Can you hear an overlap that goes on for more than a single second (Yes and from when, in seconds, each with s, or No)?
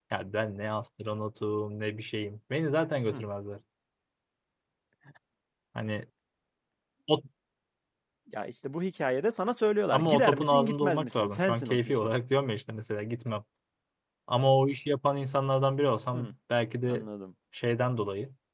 Yes, from 9.9 s